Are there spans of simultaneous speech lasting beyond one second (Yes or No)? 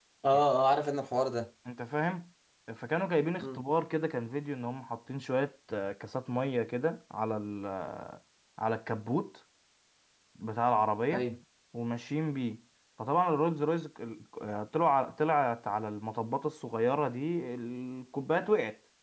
No